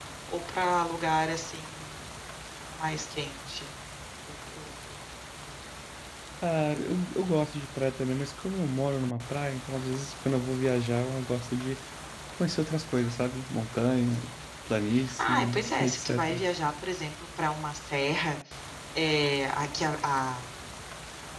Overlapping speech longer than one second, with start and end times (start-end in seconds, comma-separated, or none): 15.2-16.4